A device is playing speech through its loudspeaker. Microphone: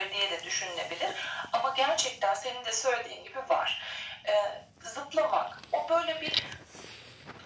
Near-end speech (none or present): none